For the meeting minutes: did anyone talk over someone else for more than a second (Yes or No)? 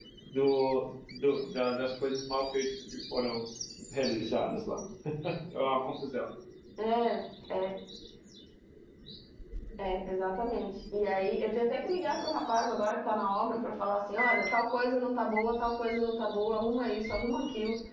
No